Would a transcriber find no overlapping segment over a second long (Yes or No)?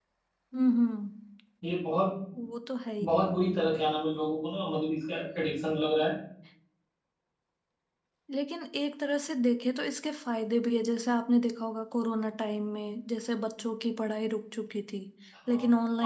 Yes